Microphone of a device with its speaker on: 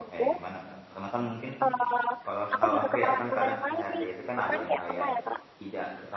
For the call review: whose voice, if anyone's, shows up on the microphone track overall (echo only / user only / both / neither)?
both